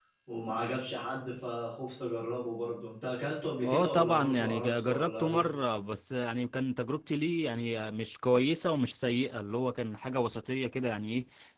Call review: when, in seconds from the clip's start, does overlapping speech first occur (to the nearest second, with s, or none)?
4 s